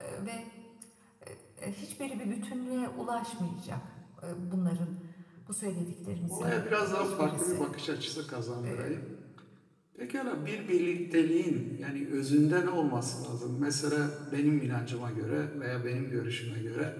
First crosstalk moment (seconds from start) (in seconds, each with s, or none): 6.3 s